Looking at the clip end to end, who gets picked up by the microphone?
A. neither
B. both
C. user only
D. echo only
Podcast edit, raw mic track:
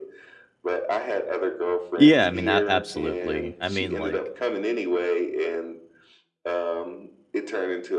B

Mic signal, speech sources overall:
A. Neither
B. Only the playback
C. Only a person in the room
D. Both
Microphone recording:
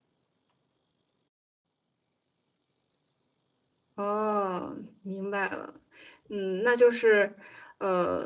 C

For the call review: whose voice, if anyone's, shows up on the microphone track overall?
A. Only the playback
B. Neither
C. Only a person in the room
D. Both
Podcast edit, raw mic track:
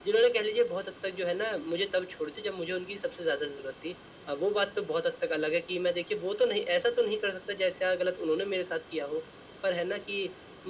A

